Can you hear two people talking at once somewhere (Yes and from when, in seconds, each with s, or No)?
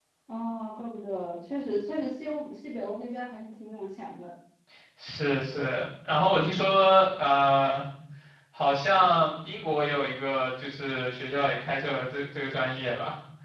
No